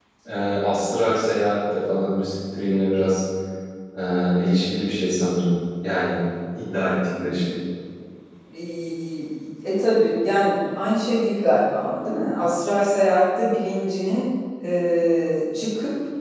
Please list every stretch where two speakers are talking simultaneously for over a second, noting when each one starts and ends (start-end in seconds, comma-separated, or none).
none